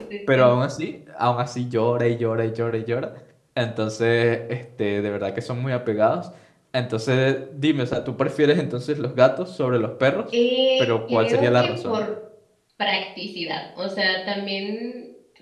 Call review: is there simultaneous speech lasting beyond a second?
Yes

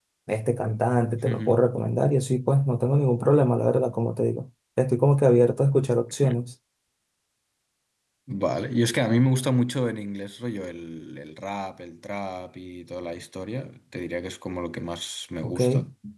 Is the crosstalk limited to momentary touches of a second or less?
Yes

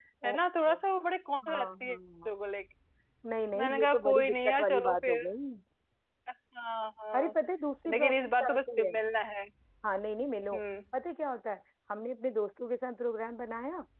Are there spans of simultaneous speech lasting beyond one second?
Yes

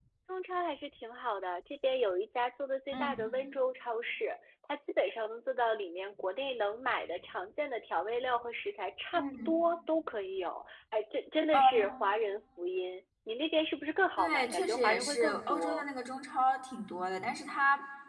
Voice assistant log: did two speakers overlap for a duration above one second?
Yes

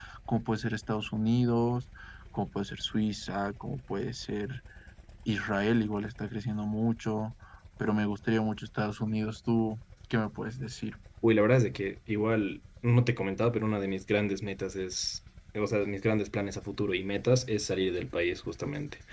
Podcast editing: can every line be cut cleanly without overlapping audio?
Yes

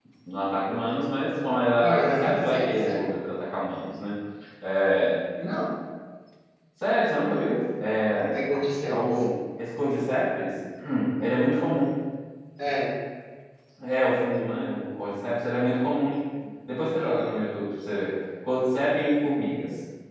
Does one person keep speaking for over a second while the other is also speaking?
Yes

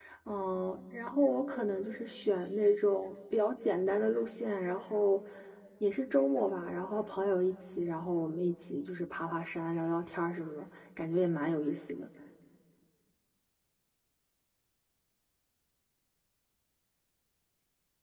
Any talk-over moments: No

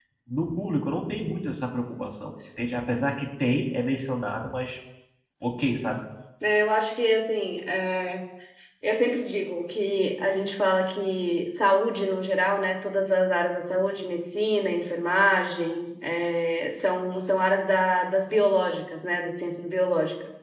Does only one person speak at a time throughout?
Yes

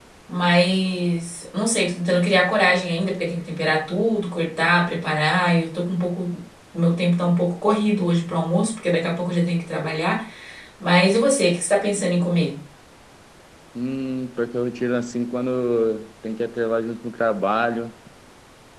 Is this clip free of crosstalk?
Yes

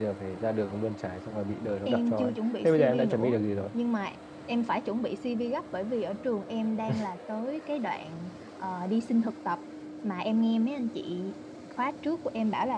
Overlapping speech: Yes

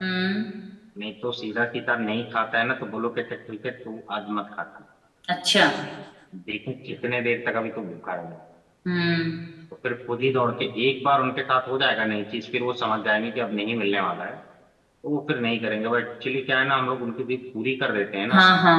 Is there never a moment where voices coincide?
Yes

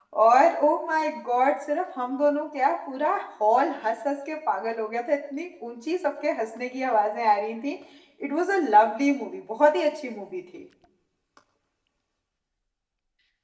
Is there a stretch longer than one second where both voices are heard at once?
No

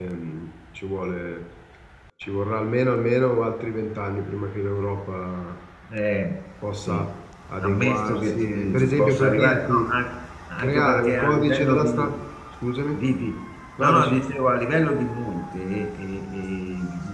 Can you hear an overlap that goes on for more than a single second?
Yes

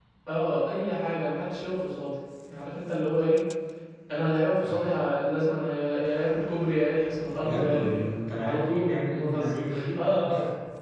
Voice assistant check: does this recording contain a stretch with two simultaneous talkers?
Yes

